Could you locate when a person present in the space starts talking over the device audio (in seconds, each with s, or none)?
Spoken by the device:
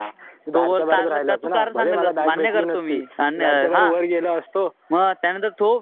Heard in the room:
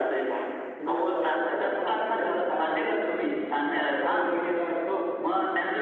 none